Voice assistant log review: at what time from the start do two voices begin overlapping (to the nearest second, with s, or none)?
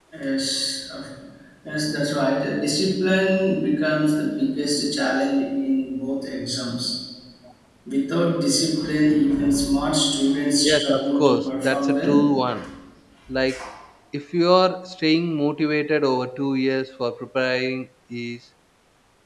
11 s